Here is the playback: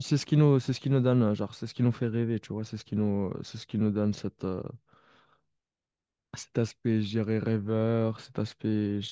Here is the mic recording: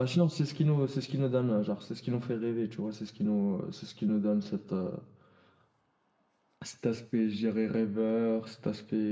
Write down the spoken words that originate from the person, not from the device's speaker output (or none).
none